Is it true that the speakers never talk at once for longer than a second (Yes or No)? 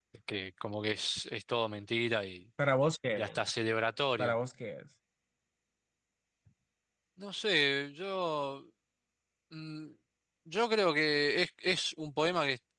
Yes